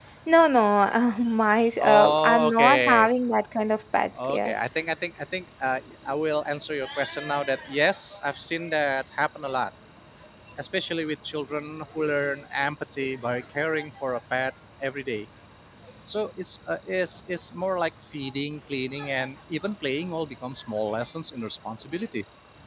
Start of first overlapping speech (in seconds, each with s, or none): 1.8 s